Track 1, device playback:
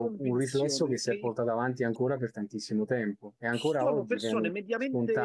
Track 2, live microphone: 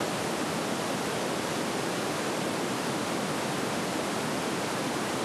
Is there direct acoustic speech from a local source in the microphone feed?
No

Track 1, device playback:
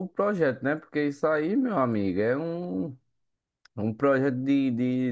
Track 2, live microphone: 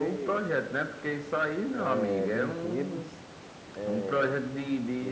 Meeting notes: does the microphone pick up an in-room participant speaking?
Yes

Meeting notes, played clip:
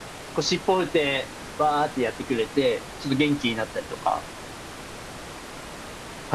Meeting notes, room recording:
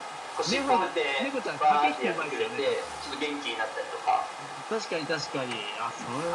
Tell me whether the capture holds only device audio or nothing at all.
No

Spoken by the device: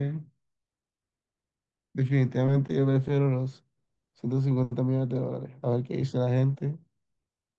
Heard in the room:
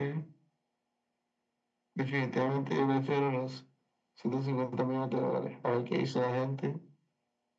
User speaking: No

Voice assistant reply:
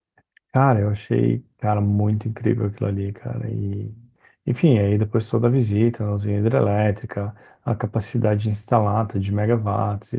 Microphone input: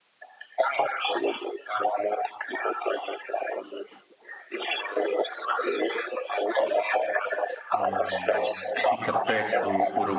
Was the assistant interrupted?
Yes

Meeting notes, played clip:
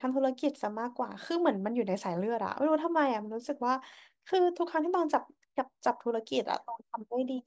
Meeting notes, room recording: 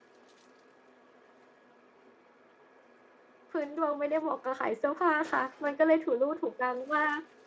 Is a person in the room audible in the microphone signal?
Yes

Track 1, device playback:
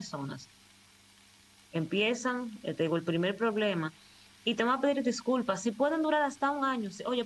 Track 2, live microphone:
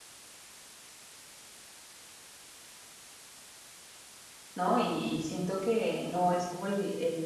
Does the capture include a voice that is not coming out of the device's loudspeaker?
Yes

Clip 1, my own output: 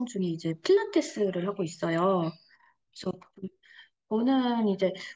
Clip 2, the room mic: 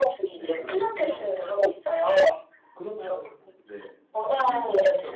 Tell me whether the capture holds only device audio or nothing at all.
No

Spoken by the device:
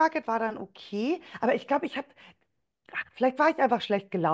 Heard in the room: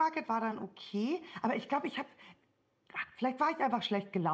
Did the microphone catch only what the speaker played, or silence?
Yes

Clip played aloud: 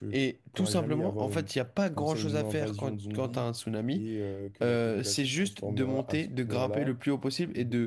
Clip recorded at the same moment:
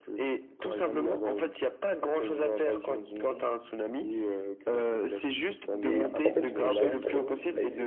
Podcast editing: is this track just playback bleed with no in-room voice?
No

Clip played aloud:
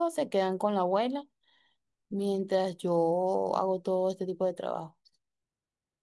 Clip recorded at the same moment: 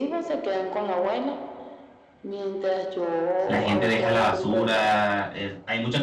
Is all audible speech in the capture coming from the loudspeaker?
No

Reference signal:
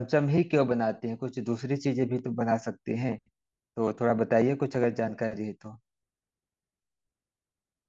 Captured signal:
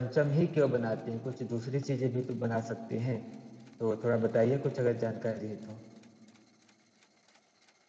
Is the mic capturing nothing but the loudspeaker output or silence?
Yes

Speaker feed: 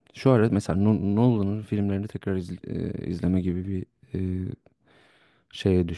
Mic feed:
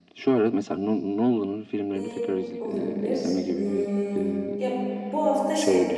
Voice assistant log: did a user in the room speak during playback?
Yes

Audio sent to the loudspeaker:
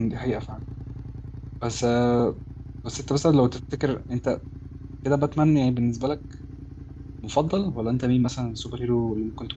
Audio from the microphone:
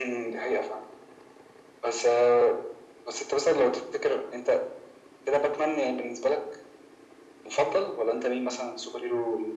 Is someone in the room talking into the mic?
No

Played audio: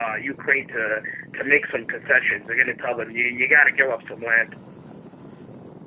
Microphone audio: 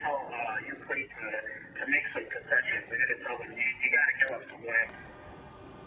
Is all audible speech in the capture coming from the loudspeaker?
Yes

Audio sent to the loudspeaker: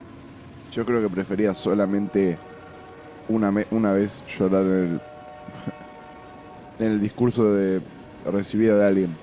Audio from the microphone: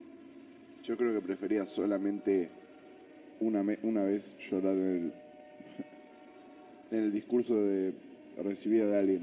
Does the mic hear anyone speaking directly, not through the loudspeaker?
No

